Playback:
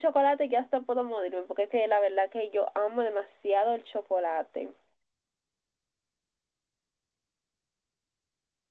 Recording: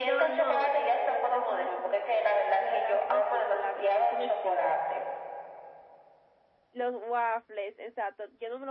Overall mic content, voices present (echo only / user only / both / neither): both